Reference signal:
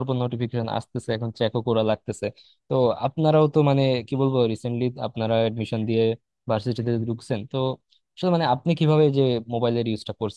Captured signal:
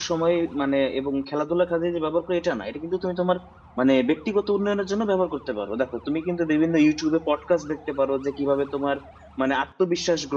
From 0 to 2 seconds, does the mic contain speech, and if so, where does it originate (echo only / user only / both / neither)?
user only